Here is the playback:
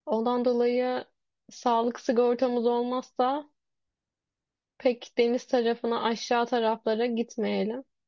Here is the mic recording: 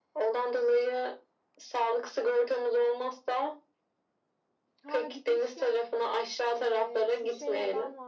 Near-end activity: present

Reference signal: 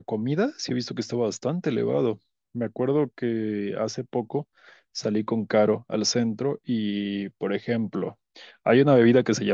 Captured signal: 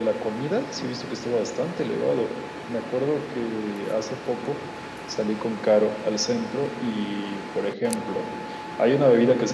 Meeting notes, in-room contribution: none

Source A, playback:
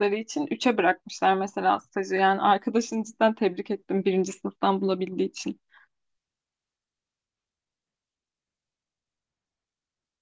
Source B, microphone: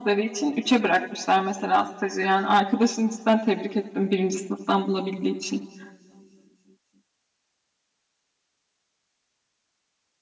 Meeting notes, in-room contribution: none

